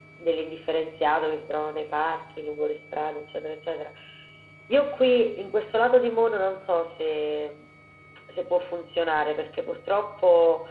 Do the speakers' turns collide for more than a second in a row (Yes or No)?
No